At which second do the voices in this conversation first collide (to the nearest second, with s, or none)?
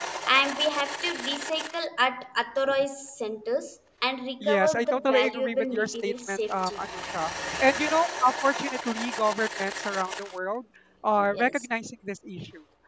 4 s